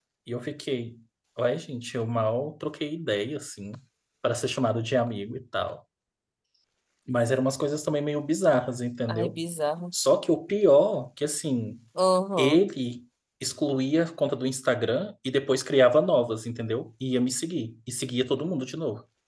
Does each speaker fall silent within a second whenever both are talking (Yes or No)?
Yes